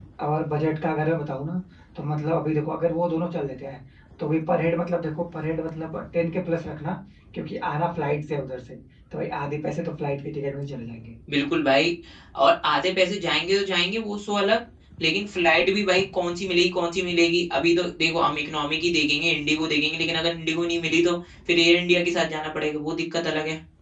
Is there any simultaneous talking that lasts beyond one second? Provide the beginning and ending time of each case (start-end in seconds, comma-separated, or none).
none